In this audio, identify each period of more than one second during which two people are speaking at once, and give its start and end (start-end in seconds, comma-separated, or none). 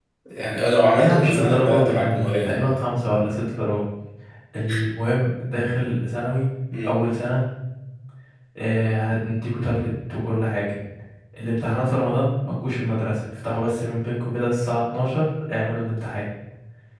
1.0-2.7